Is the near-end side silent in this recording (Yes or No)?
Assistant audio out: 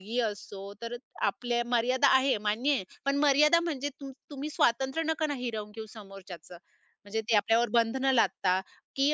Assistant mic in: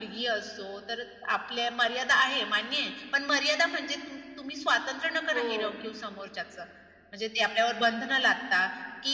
No